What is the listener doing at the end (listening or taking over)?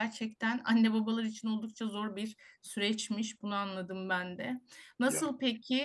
listening